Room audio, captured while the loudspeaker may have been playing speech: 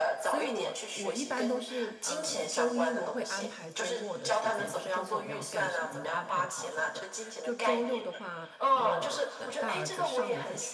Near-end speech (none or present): present